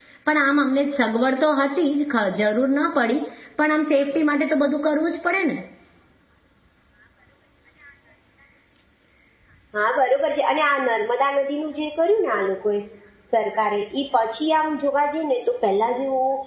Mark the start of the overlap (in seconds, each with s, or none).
none